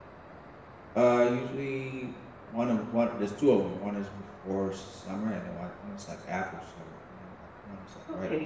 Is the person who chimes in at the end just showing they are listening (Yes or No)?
No